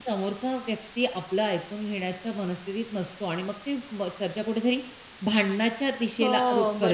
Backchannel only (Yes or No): Yes